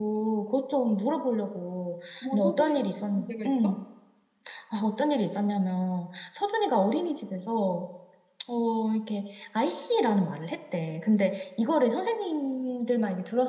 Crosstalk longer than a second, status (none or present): present